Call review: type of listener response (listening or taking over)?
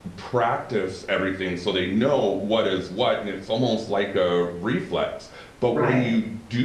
listening